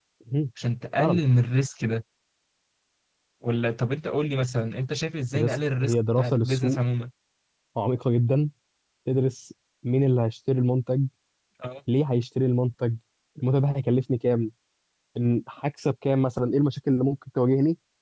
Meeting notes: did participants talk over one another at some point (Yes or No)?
Yes